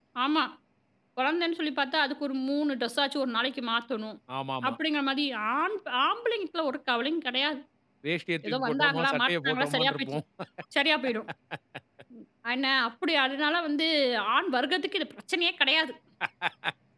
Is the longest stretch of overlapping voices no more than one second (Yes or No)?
No